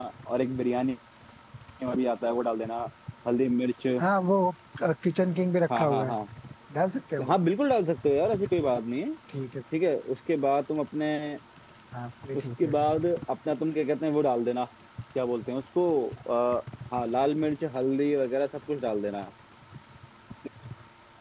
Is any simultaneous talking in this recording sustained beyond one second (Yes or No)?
No